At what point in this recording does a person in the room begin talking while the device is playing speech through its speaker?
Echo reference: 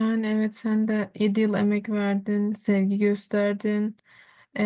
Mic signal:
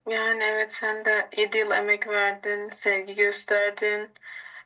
none

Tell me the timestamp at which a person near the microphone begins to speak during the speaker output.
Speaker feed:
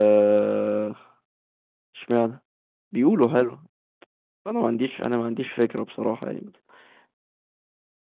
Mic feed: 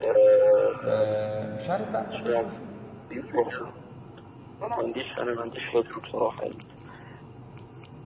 0.8 s

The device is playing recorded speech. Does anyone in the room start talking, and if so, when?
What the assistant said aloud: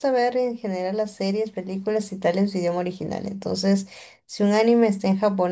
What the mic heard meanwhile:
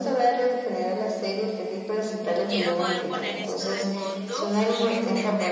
2.5 s

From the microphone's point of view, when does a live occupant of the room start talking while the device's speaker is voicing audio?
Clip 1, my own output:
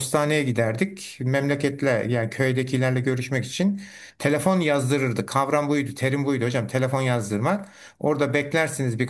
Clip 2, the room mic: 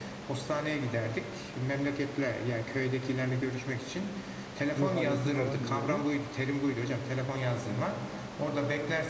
4.7 s

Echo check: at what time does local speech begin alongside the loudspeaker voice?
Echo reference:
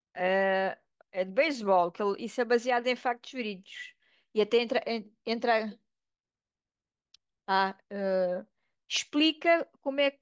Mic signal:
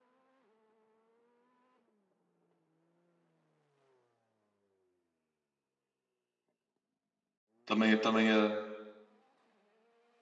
7.6 s

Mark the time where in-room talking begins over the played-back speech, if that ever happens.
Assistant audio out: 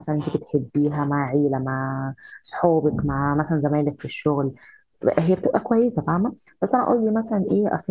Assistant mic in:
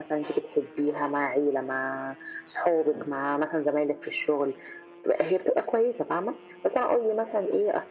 none

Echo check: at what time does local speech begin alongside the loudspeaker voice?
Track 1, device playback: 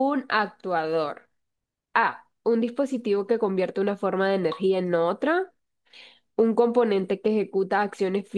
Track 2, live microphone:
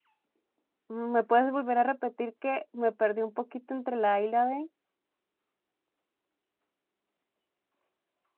0.9 s

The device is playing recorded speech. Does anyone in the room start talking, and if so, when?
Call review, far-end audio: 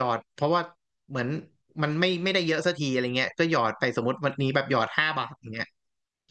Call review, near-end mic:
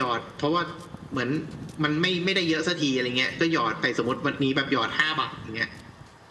none

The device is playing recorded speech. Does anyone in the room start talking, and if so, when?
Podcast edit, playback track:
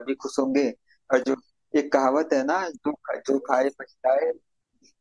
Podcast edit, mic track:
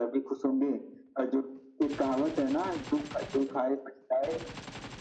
none

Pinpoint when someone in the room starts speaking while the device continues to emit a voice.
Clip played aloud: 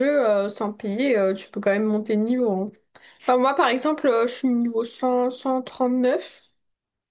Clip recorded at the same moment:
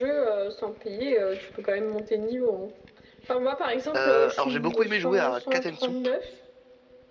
4.0 s

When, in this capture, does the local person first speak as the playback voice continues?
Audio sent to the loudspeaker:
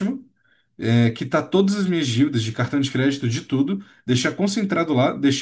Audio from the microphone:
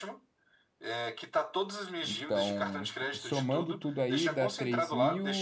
2.0 s

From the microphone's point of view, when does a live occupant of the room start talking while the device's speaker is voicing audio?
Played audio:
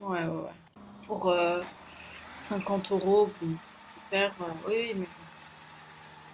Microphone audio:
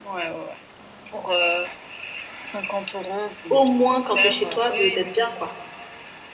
3.5 s

